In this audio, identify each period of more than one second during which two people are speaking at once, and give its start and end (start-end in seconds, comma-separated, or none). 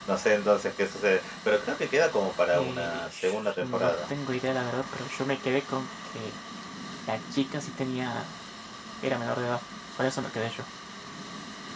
2.5-3.9